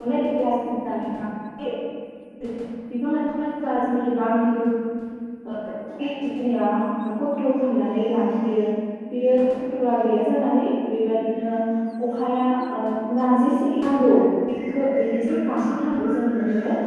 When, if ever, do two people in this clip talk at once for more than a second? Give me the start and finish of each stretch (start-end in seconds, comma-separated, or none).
none